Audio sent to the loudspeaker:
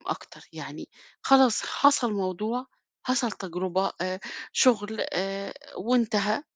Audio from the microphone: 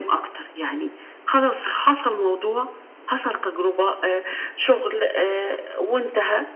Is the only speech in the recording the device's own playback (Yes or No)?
Yes